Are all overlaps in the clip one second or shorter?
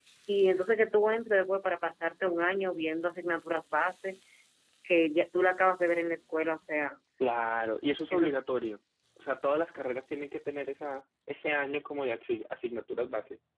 Yes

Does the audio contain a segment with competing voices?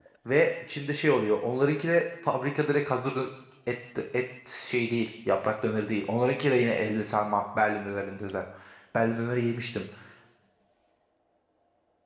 No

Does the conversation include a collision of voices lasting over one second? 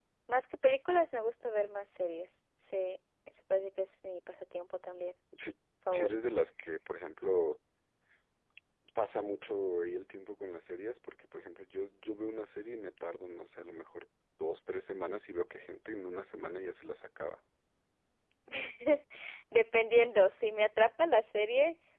No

